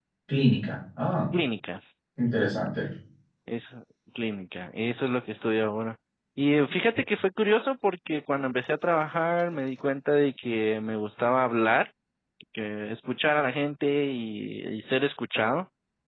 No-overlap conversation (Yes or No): Yes